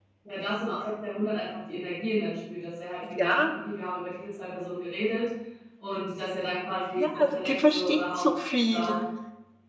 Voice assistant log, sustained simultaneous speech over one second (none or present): present